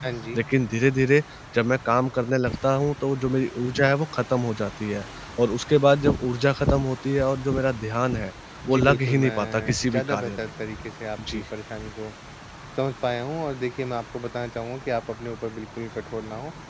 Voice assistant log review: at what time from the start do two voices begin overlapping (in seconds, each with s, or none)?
8.7 s